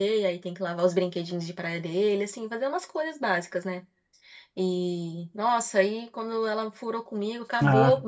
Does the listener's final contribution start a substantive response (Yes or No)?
No